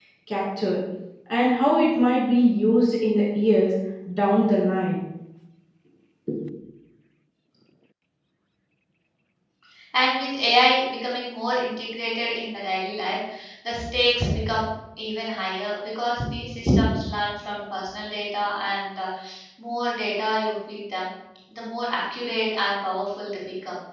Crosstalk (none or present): none